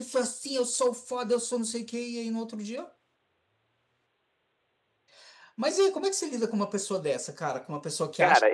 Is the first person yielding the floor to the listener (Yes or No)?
Yes